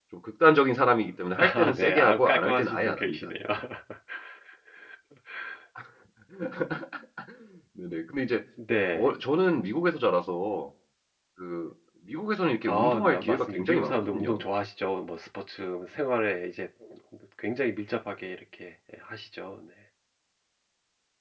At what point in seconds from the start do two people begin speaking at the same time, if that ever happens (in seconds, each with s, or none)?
1.4 s